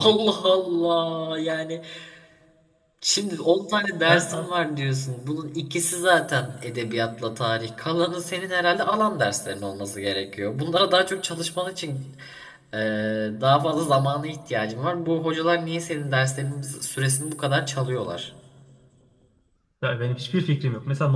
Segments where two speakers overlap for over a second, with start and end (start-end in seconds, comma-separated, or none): none